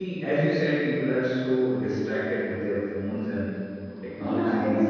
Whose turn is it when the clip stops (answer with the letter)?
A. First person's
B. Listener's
B